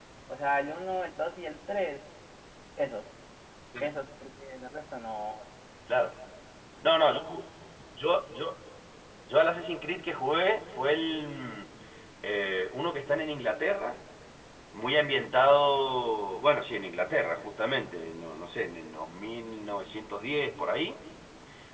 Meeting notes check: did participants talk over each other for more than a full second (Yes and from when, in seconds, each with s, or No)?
No